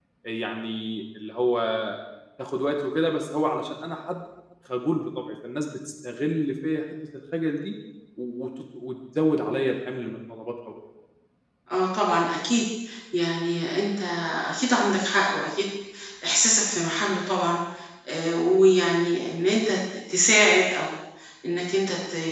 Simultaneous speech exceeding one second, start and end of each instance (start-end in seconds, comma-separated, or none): none